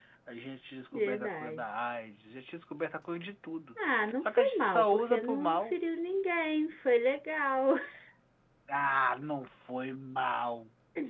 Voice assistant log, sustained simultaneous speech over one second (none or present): present